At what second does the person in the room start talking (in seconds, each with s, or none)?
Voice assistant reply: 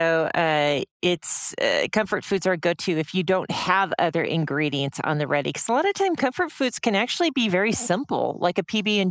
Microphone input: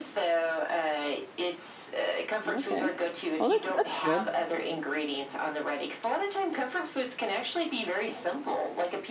2.4 s